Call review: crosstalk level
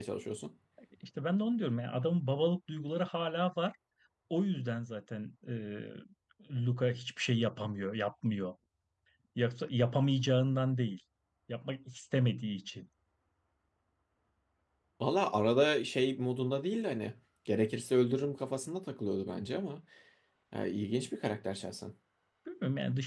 none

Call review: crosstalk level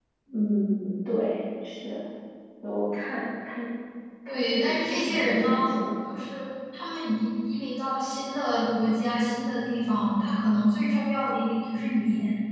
present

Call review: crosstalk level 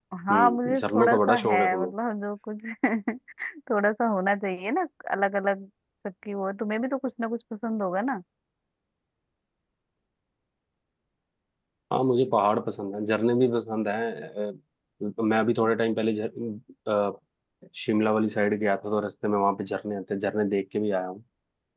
present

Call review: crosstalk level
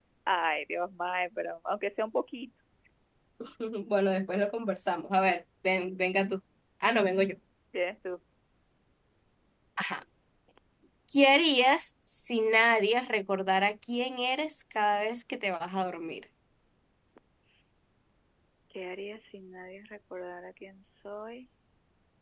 none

